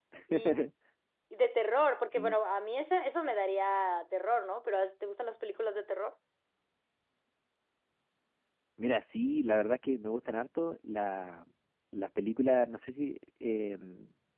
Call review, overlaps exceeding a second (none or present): none